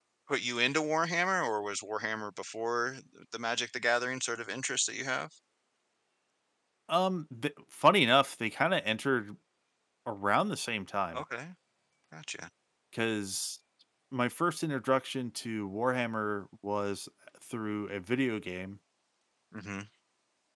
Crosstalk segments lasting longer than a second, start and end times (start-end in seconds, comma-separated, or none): none